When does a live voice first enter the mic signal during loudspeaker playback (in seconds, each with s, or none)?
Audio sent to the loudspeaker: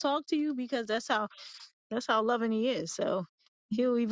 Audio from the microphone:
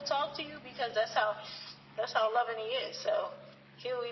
none